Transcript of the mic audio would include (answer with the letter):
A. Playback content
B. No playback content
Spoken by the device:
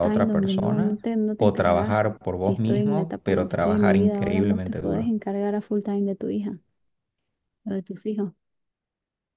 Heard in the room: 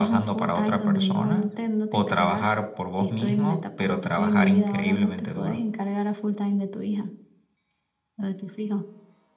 A